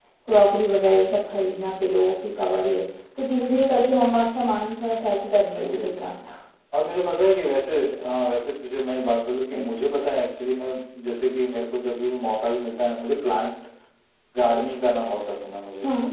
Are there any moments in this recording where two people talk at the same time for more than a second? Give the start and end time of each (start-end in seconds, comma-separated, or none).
4.7-6.0